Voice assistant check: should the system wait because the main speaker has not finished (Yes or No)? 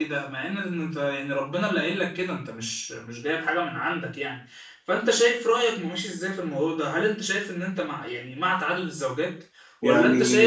Yes